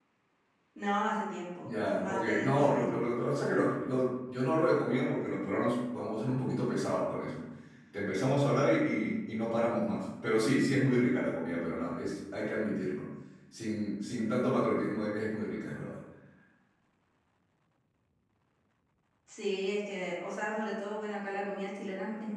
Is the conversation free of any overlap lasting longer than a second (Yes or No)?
No